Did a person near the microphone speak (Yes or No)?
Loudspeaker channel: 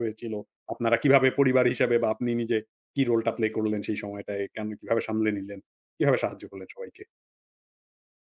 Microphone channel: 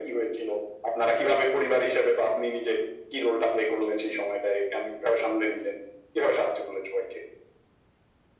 No